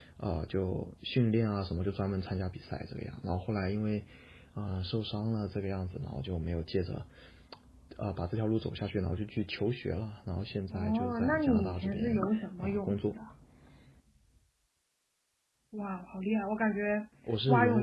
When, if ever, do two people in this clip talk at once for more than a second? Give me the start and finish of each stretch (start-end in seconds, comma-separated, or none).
10.7-12.1